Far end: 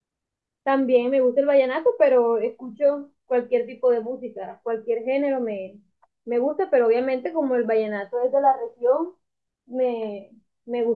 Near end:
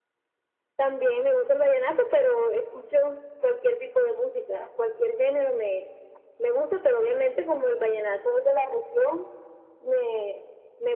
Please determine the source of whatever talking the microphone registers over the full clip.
echo only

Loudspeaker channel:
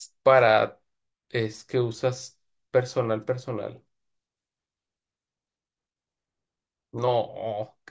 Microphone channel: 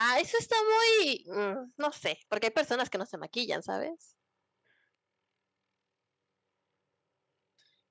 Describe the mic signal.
user only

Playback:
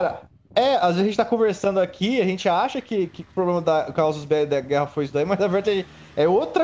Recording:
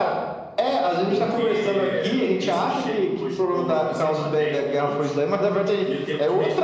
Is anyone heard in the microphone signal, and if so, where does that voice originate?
both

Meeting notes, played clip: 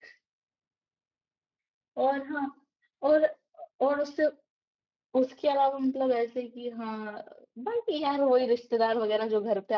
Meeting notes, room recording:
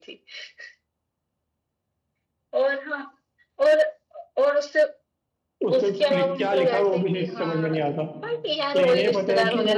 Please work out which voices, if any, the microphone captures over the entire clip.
both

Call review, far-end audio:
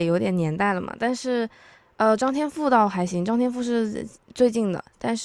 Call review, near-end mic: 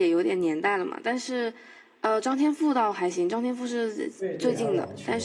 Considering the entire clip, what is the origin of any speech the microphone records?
both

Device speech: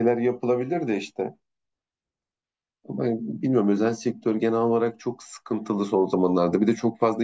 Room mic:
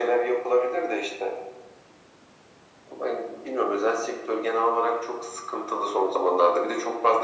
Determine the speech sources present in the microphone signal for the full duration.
echo only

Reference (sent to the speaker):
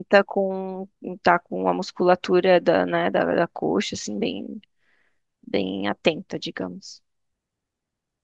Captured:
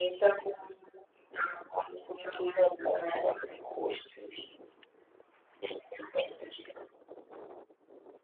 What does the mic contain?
echo only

